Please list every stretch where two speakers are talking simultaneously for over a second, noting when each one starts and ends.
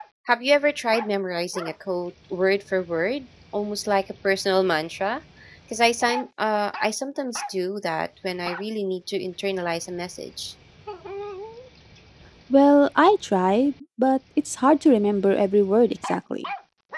none

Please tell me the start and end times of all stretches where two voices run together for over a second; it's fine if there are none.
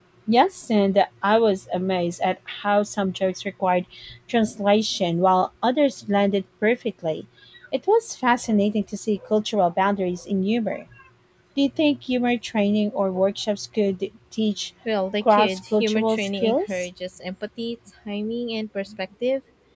15.3-16.9

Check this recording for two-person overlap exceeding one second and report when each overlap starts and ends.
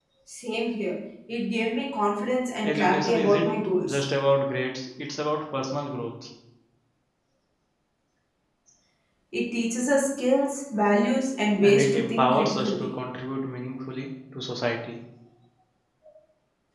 2.6-4.0, 11.6-12.9

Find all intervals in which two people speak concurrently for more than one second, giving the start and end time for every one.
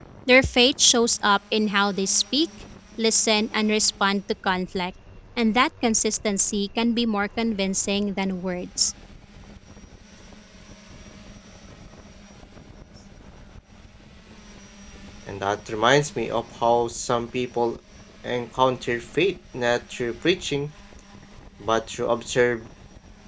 none

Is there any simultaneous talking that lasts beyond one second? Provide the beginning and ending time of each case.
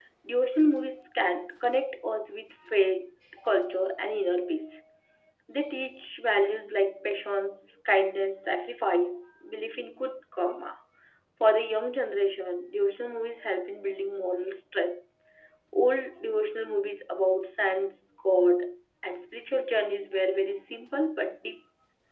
none

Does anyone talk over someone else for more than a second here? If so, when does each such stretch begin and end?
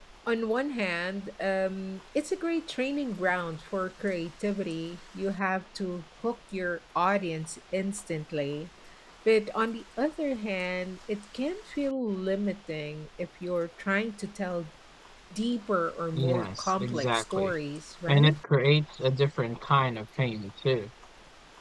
16.1-17.5

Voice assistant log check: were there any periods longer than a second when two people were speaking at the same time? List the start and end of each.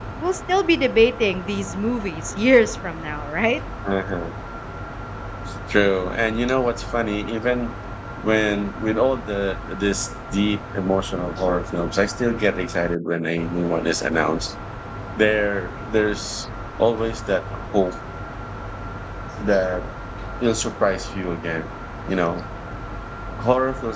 none

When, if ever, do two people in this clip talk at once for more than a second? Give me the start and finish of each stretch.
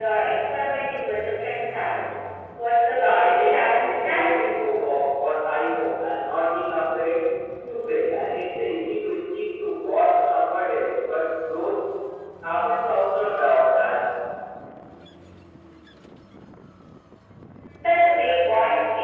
2.9-4.2

